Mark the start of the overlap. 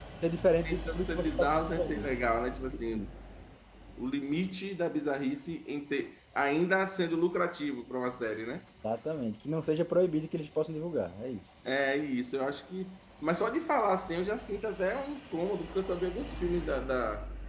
0.6 s

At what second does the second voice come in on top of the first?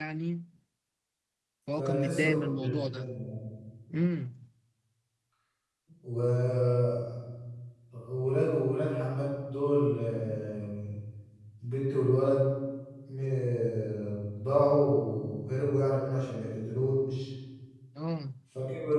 1.8 s

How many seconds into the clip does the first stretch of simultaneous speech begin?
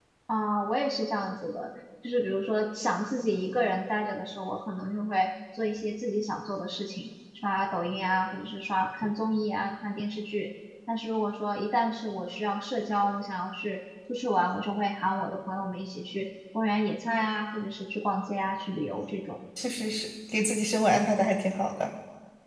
none

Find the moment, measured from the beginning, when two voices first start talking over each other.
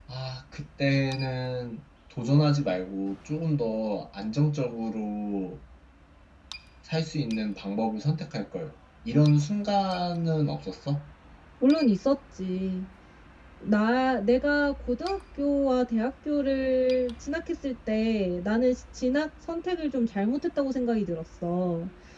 none

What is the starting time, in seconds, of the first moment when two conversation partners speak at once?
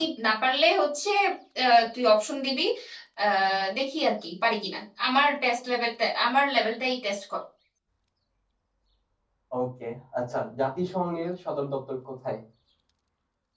none

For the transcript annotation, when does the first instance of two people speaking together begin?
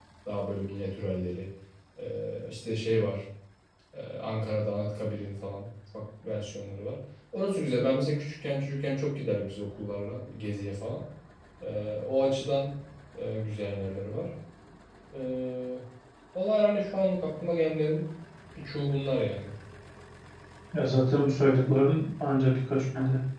none

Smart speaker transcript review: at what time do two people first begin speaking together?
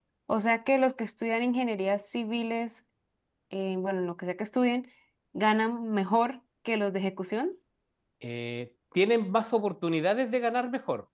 none

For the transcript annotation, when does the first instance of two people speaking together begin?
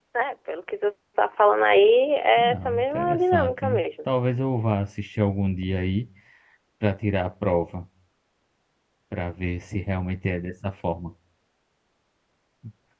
2.4 s

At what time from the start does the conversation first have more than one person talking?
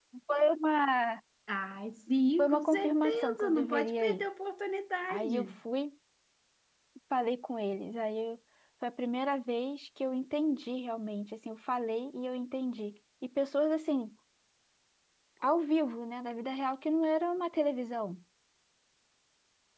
2.4 s

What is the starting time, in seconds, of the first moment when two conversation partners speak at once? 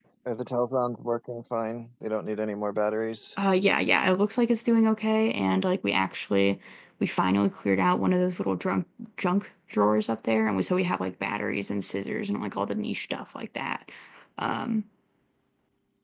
none

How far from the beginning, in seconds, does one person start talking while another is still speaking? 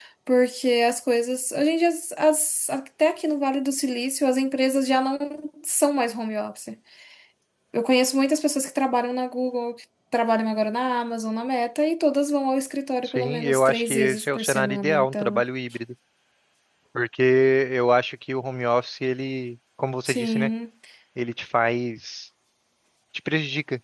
13.0 s

